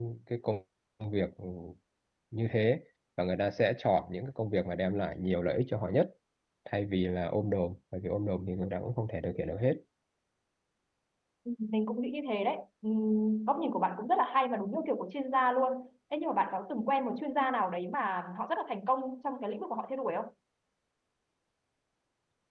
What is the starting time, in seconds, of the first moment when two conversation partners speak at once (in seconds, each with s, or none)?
none